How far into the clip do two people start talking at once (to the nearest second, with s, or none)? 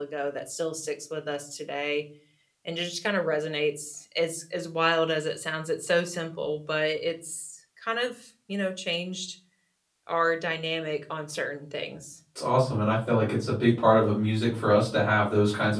none